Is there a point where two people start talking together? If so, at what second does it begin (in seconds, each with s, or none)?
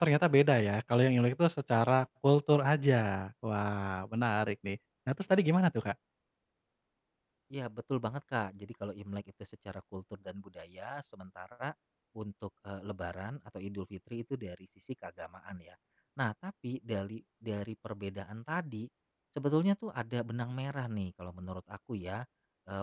none